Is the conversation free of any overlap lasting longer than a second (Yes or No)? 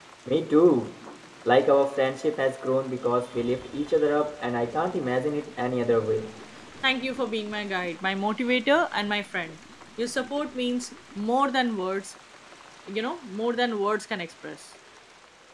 Yes